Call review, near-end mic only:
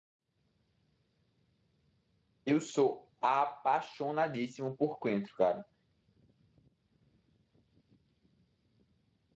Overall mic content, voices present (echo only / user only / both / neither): user only